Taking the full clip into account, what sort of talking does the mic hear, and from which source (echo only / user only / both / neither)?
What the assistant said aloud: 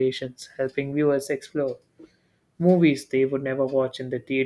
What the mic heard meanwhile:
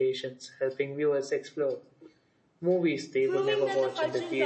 both